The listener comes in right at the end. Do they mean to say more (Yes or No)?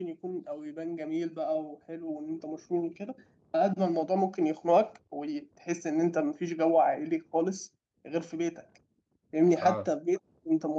No